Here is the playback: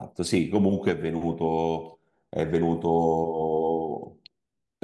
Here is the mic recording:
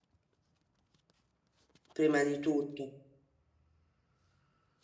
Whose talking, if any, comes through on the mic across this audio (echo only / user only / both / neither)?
user only